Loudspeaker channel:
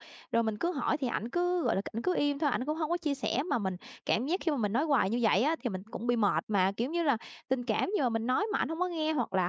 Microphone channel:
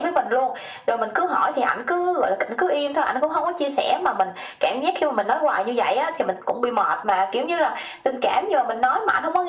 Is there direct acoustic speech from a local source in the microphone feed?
No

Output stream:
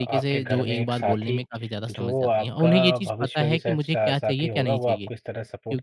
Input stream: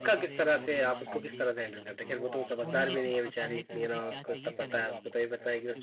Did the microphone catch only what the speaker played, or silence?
No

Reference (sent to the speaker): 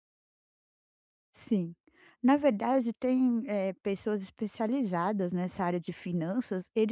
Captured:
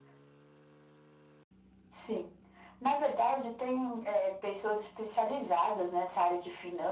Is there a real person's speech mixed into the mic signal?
No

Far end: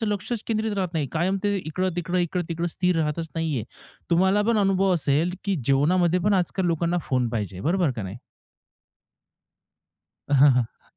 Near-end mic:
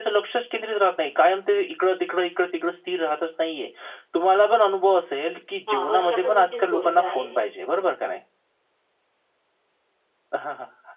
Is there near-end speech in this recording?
Yes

